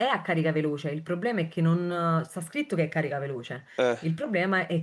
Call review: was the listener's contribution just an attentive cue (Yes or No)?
Yes